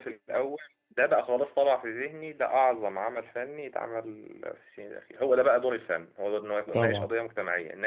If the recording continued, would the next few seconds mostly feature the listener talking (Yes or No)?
No